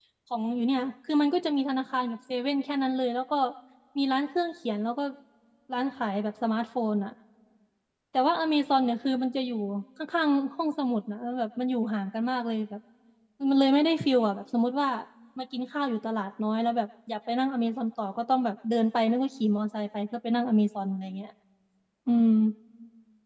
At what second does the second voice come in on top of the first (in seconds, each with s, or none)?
none